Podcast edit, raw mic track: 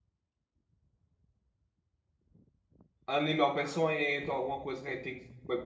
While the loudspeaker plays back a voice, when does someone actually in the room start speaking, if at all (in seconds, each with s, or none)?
3.1 s